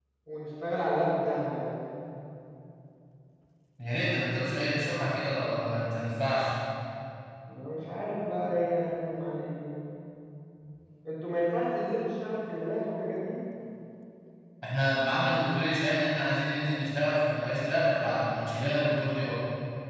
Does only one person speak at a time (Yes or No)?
Yes